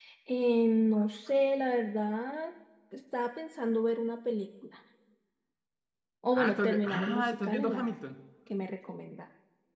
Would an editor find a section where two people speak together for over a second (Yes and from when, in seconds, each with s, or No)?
Yes, from 6.3 s